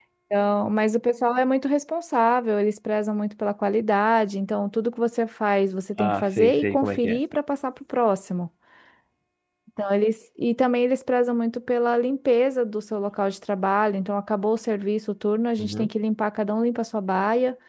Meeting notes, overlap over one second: present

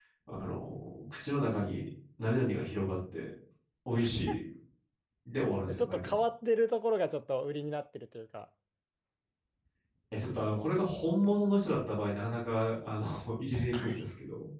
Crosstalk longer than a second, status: none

